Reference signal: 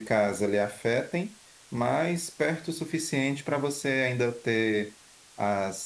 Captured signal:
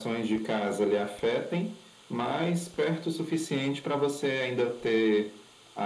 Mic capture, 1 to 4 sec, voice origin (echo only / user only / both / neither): echo only